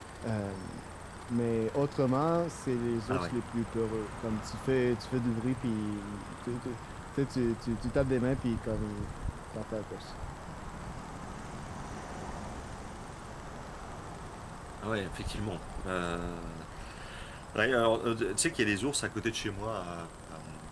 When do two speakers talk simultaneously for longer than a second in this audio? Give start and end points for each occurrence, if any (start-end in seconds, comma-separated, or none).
none